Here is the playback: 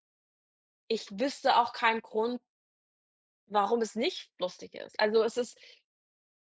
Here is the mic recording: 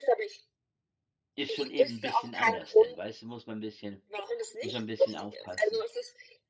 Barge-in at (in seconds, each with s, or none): 1.4 s